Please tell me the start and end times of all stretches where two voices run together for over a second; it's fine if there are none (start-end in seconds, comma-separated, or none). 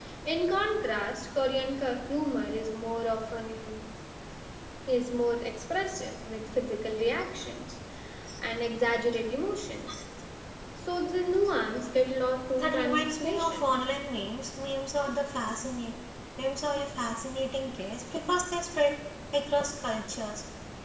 12.5-13.7